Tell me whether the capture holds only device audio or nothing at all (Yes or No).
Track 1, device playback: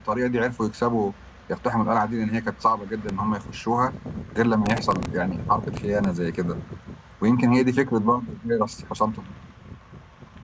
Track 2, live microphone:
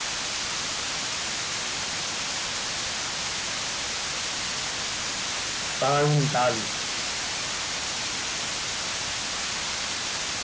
No